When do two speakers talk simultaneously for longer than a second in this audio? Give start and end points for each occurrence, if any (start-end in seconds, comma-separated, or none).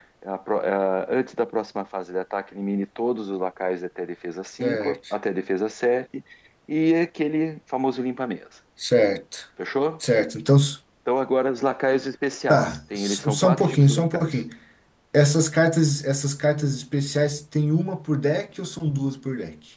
12.5-14.4